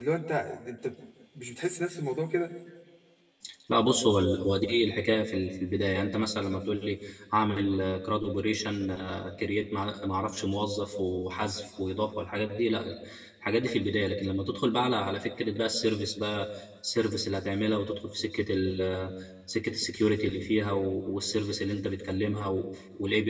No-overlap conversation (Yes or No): Yes